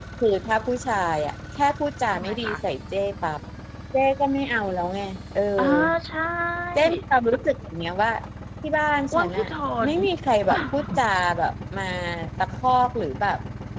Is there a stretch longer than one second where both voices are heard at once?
No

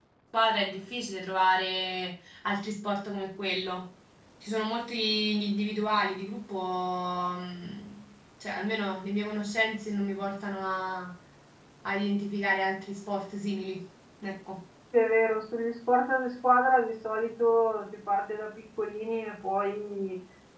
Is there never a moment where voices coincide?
Yes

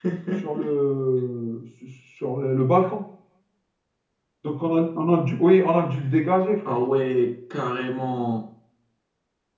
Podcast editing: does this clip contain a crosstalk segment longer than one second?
No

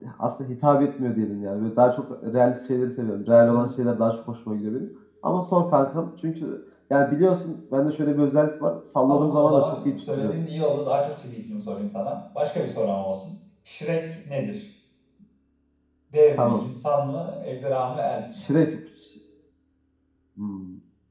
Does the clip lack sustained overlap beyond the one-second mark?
No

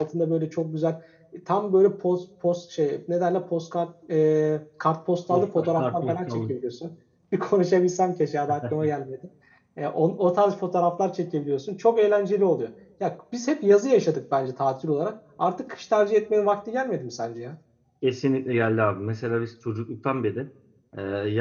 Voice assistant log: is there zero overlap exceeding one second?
No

